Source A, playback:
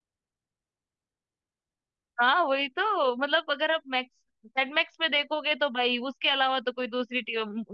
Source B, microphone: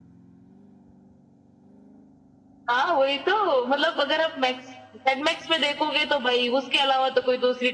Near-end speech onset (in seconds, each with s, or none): none